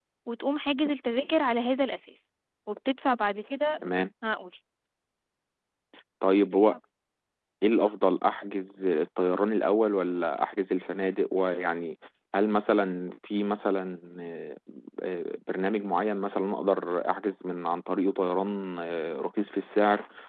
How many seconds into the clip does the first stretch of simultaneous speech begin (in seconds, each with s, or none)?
none